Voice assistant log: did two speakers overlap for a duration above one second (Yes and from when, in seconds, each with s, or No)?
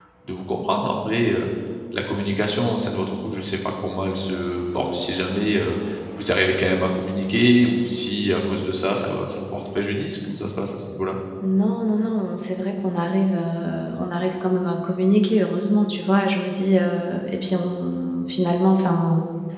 No